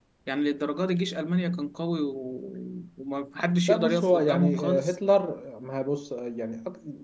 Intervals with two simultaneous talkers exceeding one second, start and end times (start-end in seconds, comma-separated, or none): 3.7-5.0